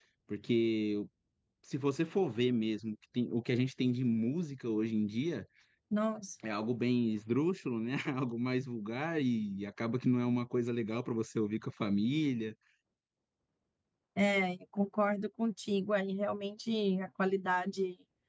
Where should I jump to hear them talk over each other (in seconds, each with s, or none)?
none